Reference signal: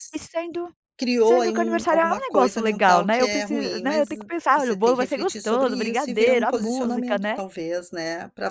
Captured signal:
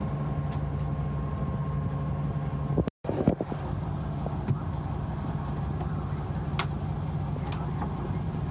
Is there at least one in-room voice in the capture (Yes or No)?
No